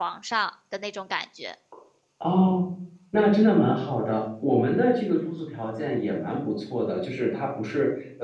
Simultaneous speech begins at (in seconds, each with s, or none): none